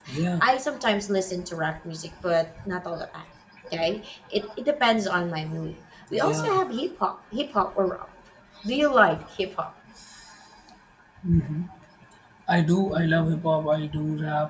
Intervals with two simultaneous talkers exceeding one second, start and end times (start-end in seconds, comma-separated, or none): none